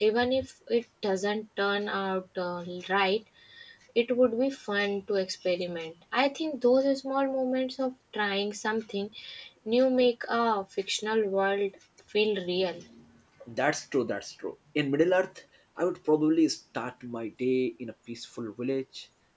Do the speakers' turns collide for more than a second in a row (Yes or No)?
No